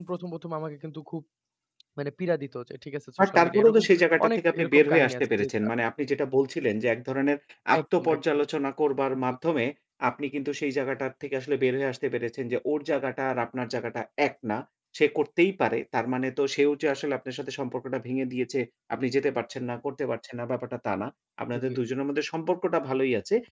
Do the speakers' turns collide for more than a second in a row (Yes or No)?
Yes